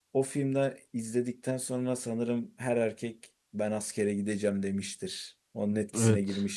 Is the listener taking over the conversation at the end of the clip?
Yes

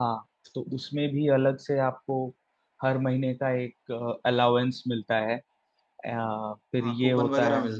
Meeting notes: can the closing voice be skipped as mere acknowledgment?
No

